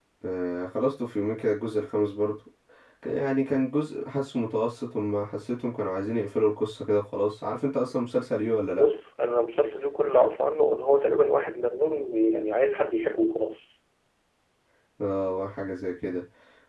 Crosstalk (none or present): none